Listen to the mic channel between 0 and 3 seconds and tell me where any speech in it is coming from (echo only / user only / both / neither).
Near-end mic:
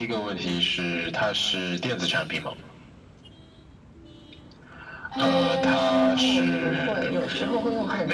echo only